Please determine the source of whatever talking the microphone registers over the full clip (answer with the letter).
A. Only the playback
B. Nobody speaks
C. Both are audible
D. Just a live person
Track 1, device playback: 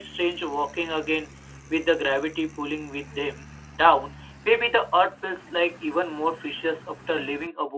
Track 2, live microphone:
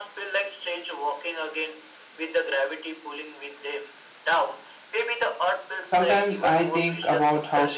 C